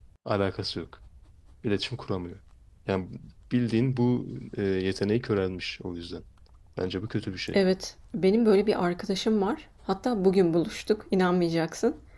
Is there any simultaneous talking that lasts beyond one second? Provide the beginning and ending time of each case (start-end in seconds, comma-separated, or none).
none